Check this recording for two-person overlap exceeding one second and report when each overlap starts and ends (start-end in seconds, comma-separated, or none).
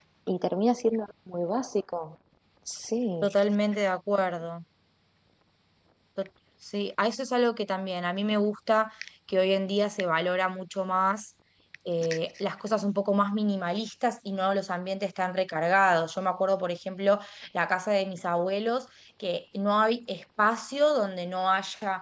none